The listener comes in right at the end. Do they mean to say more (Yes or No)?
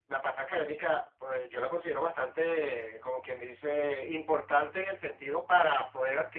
No